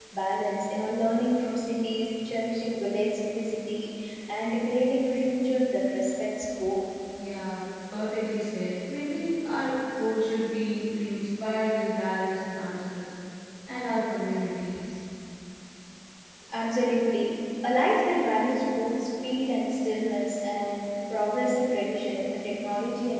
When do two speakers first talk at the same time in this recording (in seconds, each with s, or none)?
none